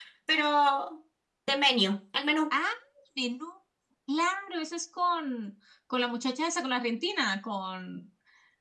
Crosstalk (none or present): none